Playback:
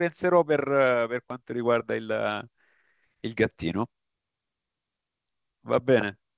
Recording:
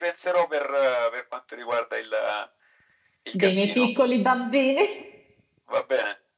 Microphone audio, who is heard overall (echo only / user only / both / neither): both